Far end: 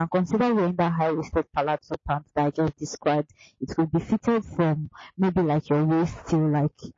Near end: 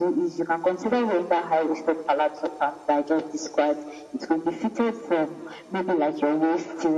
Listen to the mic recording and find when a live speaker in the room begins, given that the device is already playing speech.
none

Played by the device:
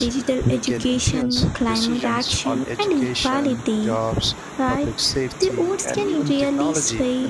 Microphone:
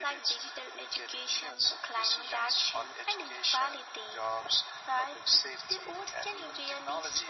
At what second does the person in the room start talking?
none

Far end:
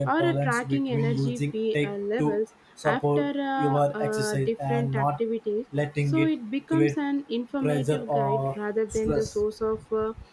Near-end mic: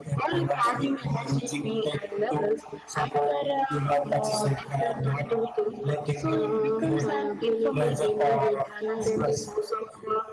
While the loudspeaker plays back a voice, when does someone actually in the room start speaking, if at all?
6 s

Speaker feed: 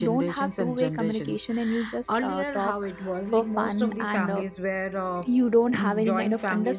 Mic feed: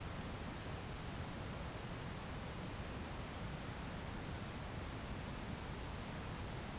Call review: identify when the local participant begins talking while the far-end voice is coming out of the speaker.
none

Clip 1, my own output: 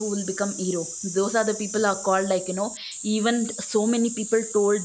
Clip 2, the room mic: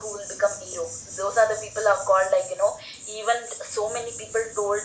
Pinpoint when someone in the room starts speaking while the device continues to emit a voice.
none

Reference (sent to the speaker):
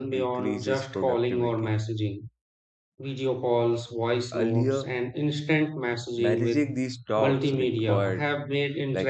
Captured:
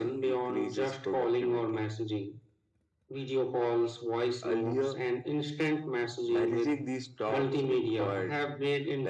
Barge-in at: none

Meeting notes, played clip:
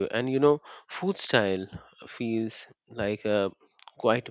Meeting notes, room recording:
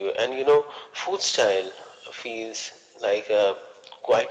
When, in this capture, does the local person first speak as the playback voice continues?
none

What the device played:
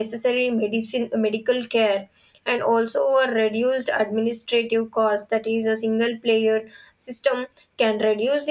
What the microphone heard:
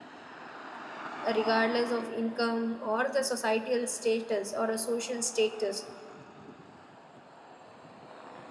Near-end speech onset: 1 s

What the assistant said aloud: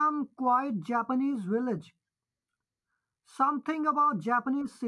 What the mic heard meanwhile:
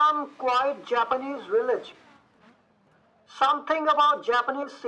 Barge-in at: none

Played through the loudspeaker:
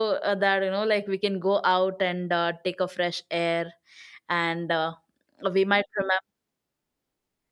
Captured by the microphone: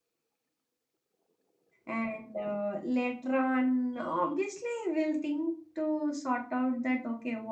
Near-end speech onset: 2 s

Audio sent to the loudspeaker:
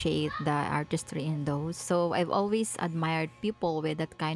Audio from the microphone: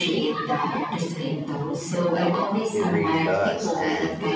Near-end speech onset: 3 s

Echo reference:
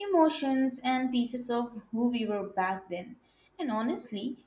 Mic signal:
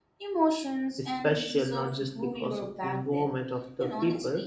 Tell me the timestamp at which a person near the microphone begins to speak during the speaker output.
1 s

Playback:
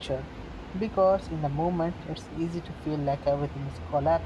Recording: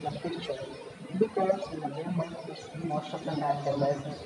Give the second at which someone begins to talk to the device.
3 s

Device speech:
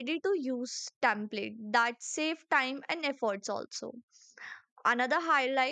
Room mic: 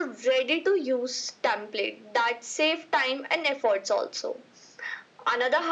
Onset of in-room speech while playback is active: none

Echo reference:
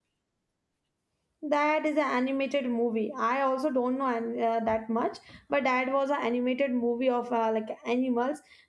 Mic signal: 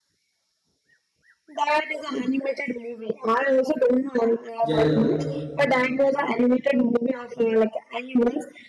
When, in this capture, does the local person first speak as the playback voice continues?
5 s

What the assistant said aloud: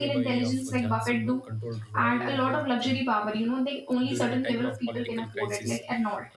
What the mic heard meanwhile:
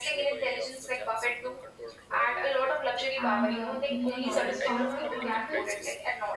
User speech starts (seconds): 3 s

